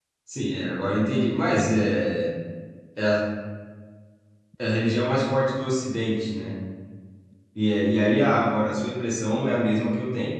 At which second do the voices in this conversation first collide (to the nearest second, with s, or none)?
none